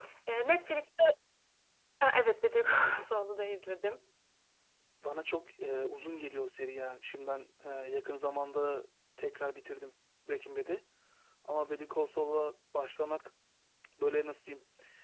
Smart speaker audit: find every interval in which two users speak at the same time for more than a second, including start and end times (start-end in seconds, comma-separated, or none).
none